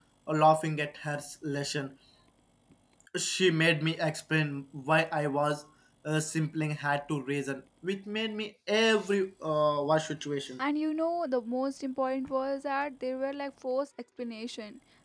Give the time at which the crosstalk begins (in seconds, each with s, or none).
none